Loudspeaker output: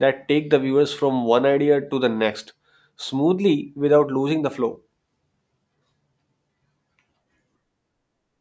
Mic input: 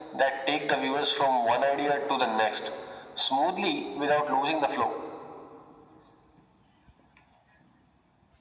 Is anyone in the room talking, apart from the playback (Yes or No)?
No